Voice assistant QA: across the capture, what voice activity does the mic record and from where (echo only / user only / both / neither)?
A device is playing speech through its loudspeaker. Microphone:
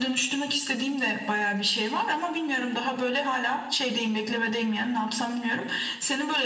echo only